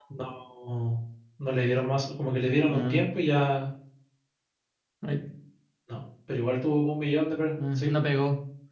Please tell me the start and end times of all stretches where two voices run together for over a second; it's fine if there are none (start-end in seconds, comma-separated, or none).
none